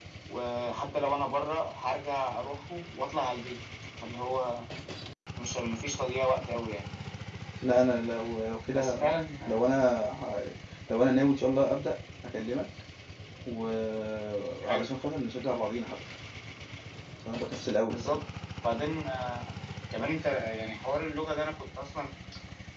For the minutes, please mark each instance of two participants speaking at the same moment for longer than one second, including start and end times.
none

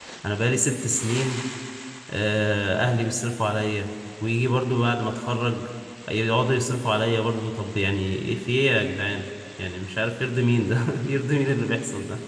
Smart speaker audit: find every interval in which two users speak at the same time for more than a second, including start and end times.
none

